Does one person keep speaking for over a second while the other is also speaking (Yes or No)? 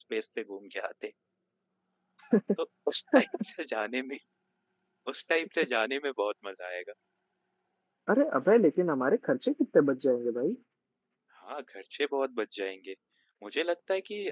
No